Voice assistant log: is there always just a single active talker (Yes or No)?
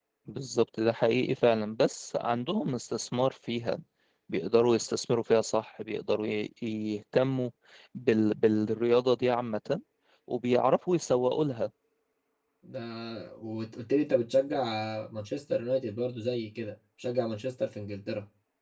Yes